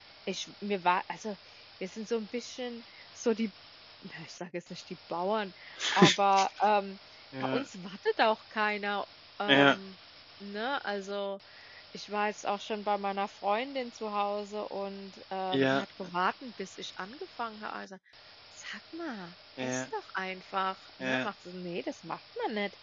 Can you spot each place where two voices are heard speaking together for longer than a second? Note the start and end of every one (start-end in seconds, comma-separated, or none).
none